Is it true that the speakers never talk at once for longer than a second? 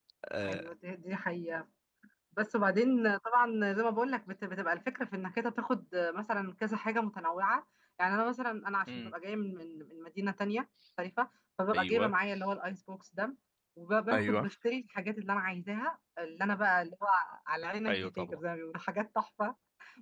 Yes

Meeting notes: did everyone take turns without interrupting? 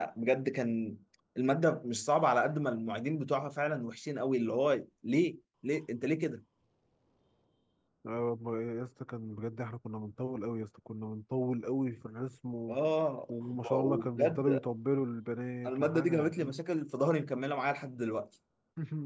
No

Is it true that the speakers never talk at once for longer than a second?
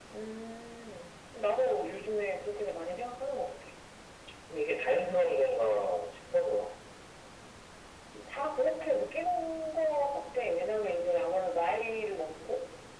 Yes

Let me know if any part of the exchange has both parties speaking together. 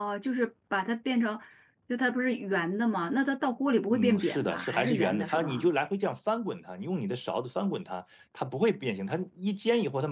Yes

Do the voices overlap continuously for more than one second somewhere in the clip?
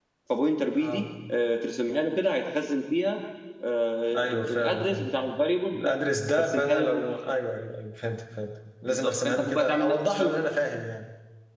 Yes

